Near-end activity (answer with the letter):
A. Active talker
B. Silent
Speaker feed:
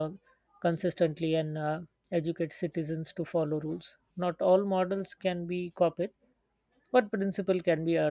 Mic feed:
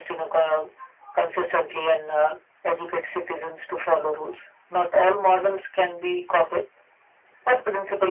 B